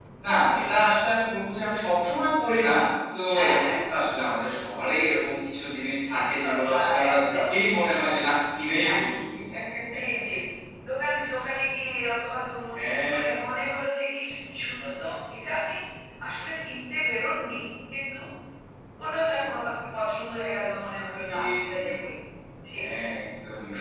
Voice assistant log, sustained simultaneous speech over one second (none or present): present